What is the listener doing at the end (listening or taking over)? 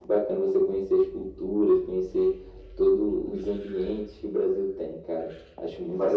taking over